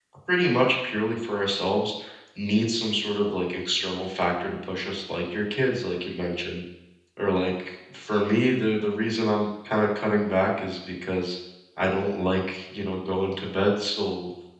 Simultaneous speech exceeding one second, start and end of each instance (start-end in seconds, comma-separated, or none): none